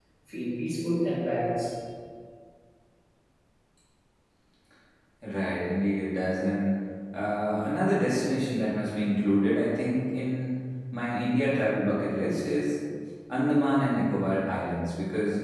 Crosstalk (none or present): none